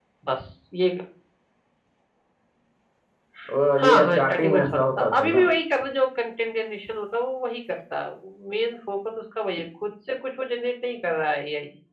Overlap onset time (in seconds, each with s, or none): 3.8 s